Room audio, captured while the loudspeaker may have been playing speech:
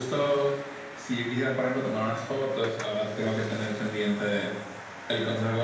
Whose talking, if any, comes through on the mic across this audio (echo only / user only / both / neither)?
echo only